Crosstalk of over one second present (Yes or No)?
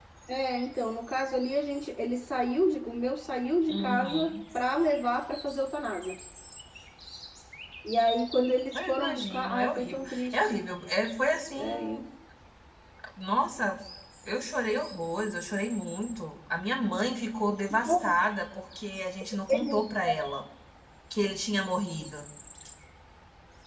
Yes